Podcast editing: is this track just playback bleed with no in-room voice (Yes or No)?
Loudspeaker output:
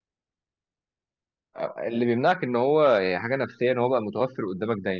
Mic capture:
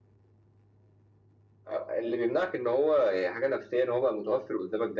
Yes